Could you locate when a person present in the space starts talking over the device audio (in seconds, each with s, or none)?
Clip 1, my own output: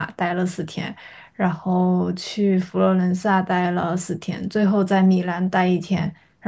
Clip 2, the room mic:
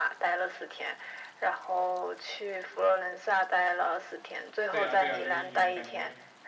4.7 s